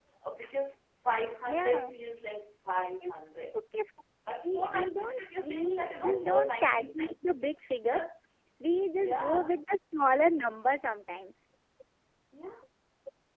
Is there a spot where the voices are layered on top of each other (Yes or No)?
Yes